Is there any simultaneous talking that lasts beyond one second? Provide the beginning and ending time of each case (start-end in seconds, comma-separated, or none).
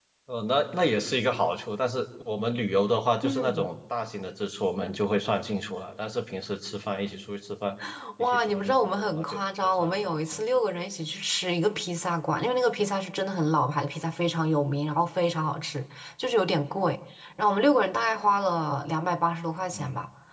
8.2-10.4